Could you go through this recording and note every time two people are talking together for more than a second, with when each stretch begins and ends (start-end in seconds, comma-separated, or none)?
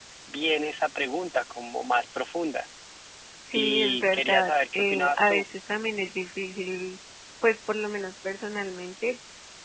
3.5-5.5